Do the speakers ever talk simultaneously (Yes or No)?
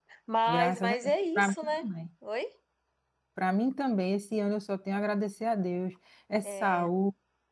Yes